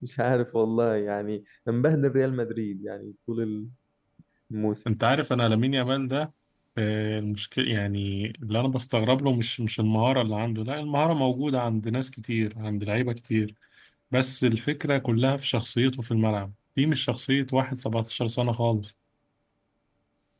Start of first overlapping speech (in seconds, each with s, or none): none